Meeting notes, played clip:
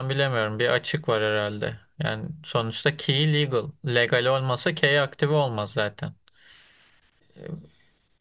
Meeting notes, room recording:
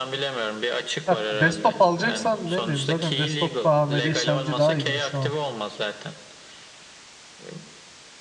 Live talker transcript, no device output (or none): Ha, desktop alacaksan ne bileyim zaten desktopta AMD işlemci daha iyi gibi şu an.